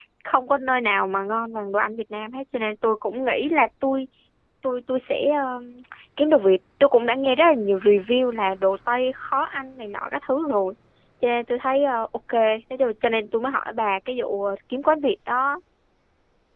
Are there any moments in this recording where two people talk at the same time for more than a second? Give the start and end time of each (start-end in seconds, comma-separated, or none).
none